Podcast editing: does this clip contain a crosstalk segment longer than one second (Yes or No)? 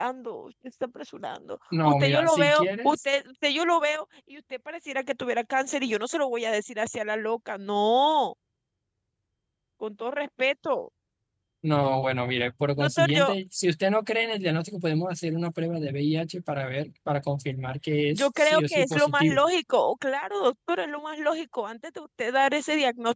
Yes